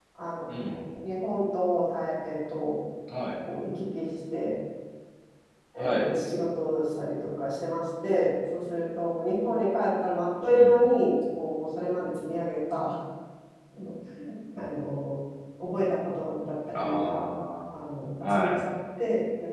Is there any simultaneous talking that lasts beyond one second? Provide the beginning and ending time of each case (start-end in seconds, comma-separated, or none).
none